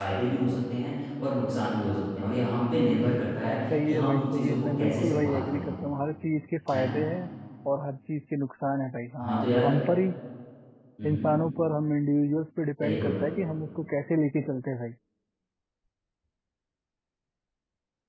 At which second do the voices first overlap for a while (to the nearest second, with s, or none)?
4 s